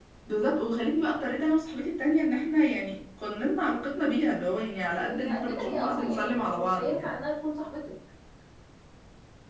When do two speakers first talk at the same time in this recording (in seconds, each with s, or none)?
5.0 s